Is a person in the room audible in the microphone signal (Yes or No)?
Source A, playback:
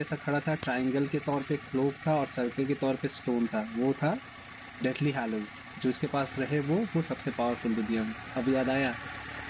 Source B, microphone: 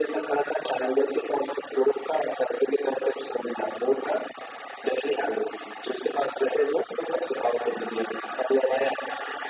No